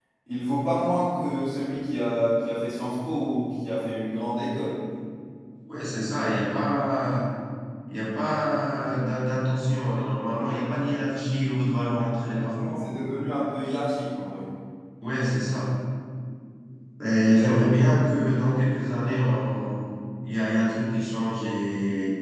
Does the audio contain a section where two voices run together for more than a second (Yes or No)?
No